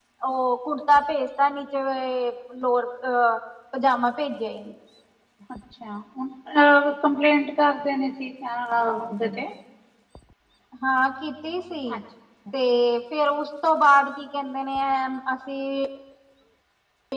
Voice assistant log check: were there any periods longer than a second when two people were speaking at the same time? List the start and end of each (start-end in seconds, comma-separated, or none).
none